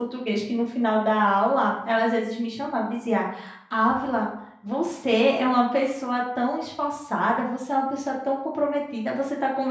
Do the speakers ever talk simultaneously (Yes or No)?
No